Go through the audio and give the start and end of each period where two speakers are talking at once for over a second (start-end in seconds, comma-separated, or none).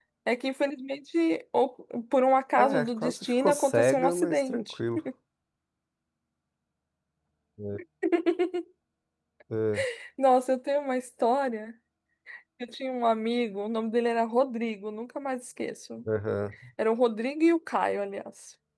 2.6-4.8